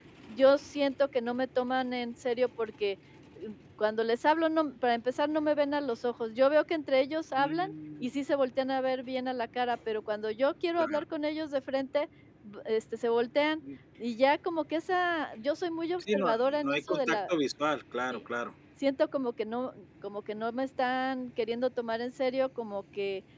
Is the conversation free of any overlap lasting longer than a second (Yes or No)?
No